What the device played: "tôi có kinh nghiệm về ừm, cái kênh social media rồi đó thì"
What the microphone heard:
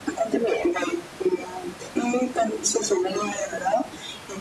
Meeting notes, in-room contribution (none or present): none